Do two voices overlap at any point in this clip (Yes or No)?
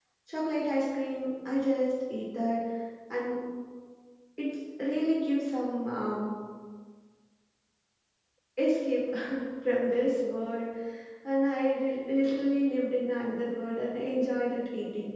No